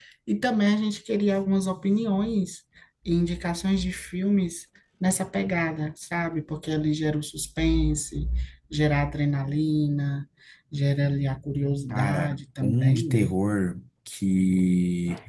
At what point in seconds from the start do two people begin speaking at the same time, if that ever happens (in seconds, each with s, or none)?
11.9 s